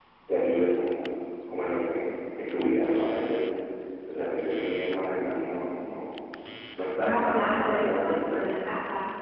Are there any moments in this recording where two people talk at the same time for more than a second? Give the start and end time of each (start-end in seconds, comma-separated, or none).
7.0-8.7